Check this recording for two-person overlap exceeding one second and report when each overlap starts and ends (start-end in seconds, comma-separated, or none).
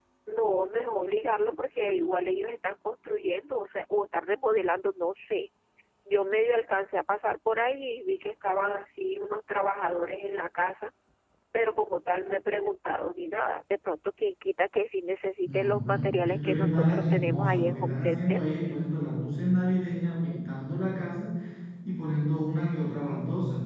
15.5-18.4